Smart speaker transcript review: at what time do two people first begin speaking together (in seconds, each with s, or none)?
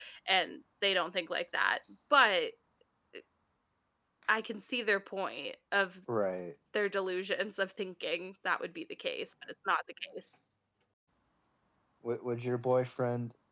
none